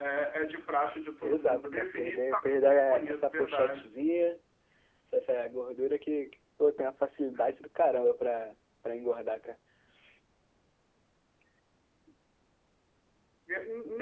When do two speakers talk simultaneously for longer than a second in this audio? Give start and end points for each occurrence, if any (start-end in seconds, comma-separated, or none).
1.2-3.8